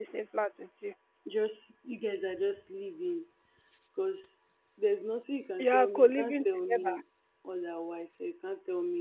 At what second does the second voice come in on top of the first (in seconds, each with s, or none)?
5.6 s